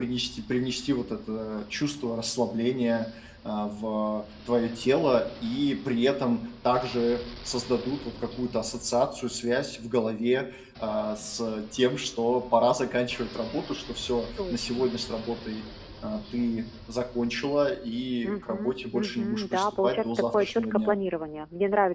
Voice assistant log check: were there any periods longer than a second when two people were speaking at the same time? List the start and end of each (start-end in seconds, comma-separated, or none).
18.2-21.0